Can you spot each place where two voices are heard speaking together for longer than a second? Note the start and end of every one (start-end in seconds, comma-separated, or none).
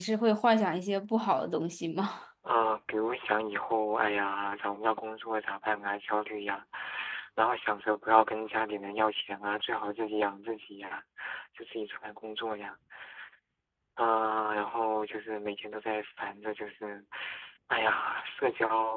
none